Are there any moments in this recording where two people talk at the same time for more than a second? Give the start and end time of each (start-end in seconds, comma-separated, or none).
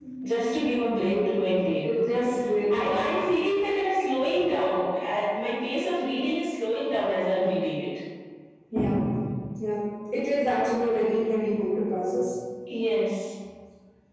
1.8-3.1